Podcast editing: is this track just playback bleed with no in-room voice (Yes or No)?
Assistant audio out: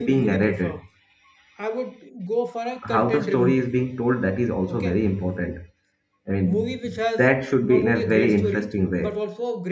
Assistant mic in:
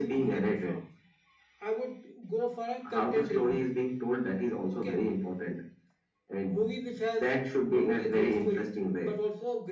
Yes